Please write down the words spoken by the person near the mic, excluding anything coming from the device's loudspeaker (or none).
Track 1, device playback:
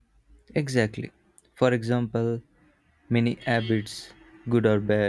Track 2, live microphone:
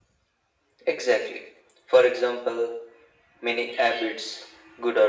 none